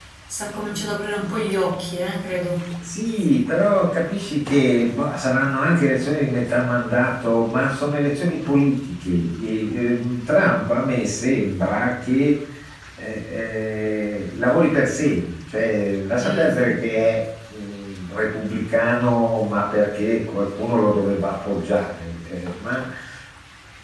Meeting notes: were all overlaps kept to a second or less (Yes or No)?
Yes